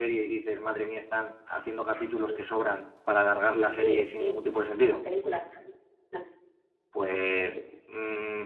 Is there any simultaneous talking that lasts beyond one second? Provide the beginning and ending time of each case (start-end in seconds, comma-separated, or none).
3.8-5.0